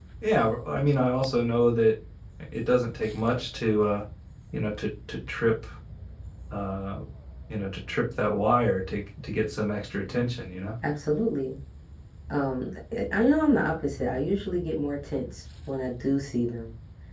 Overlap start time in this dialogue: none

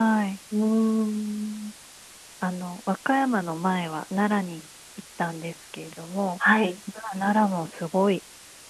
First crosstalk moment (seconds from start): none

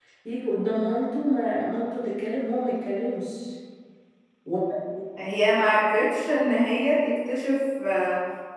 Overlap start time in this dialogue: none

